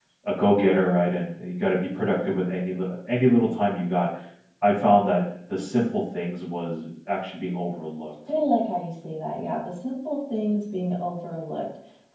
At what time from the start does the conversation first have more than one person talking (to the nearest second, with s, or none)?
none